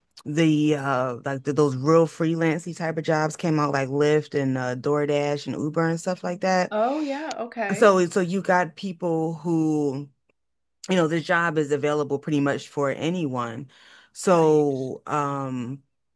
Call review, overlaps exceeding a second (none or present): none